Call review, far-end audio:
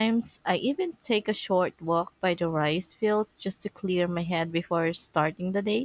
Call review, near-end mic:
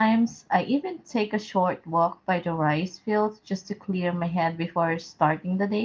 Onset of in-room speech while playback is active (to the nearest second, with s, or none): none